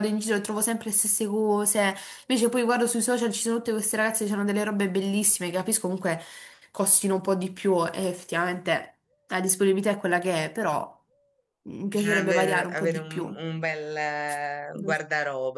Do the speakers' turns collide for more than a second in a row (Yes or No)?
Yes